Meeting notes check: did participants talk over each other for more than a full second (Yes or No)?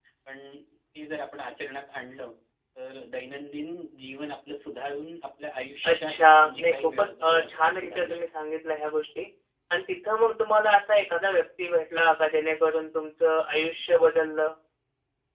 Yes